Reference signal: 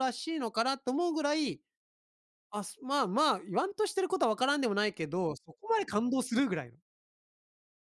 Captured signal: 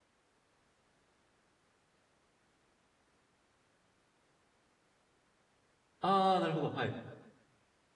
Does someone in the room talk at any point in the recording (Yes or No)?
Yes